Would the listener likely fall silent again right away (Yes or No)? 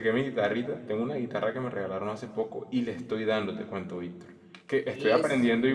Yes